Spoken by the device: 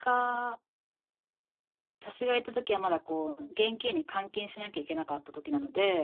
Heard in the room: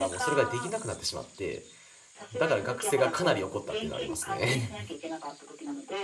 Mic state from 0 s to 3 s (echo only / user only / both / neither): both